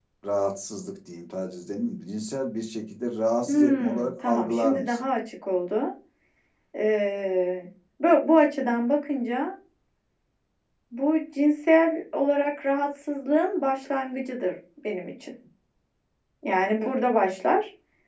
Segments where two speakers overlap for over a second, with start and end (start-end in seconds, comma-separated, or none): 3.5-5.1